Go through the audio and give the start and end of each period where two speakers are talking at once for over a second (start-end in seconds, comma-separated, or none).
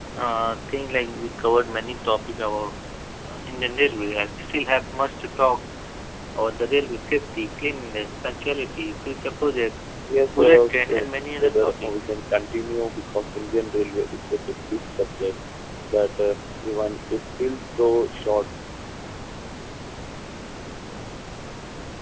10.3-12.1